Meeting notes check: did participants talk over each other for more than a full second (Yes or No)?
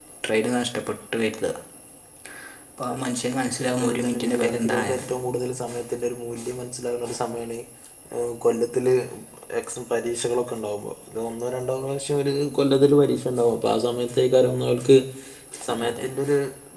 Yes